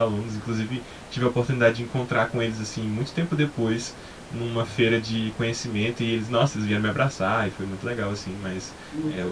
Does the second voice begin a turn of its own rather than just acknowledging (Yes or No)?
No